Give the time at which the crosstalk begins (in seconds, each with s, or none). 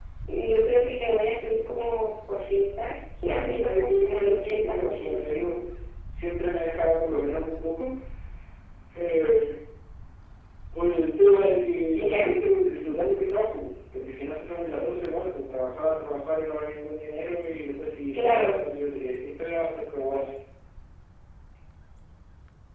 3.2 s